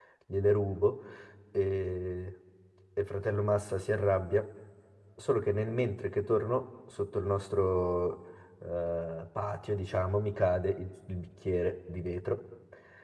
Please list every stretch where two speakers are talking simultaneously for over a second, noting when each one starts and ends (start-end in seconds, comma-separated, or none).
none